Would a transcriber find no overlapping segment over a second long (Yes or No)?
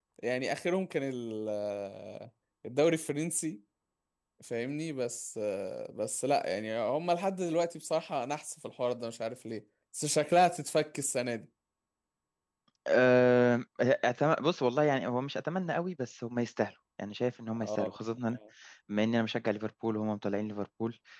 Yes